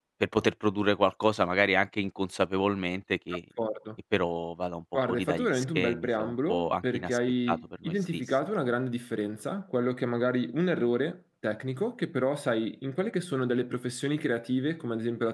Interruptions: present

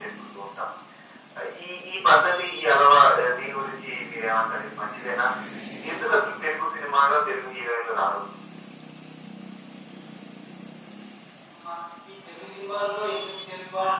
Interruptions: none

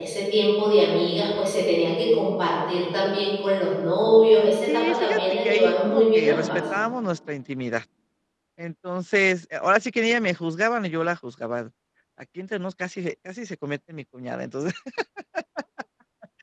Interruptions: present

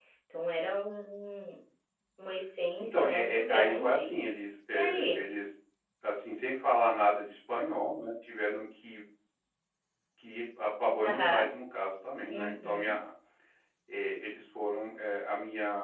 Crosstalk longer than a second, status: present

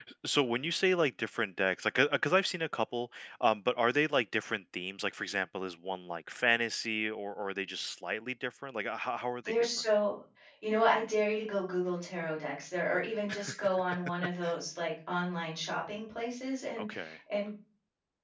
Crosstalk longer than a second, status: none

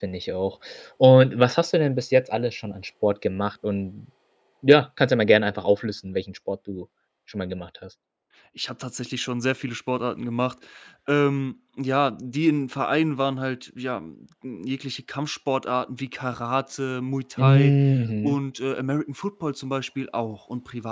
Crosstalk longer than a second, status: none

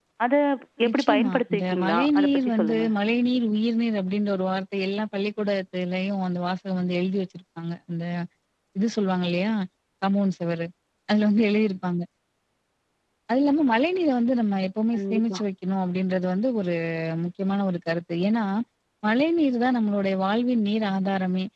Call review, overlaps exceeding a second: present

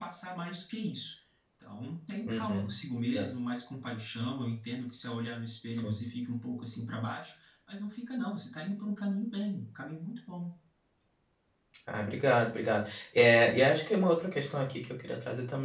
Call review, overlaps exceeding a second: none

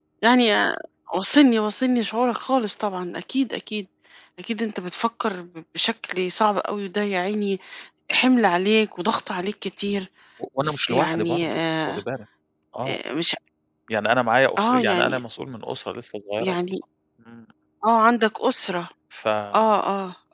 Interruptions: present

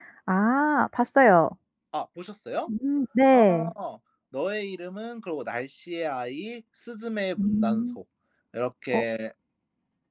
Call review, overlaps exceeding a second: none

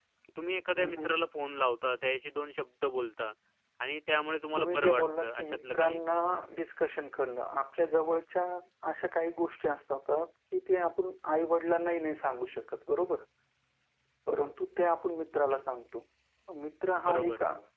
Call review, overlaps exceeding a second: present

